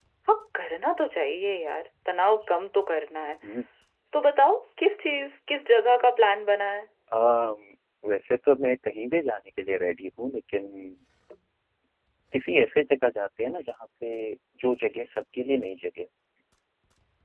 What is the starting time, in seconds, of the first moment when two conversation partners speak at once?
none

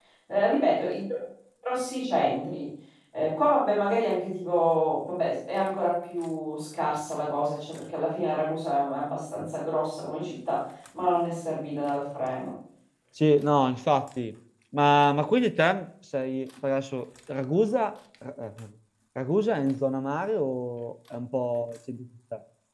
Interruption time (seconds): none

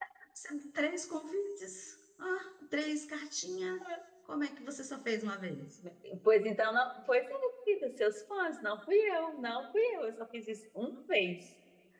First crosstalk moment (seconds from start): none

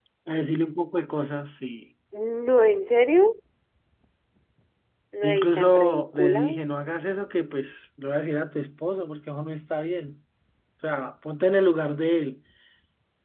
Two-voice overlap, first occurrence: 5.2 s

